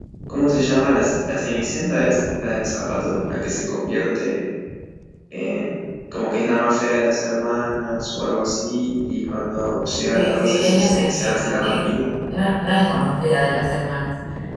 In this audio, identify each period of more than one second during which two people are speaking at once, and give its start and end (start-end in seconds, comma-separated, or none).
10.1-11.9